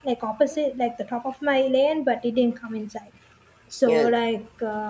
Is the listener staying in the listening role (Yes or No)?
Yes